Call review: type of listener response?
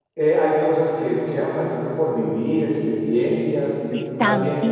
taking over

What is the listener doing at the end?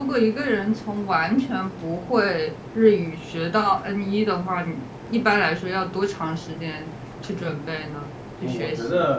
taking over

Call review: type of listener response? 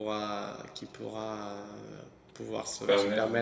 listening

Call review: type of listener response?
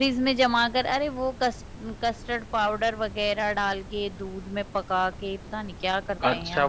taking over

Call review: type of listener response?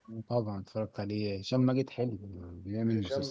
taking over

